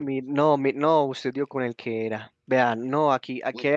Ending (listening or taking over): listening